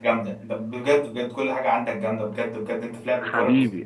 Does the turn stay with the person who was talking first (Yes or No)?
No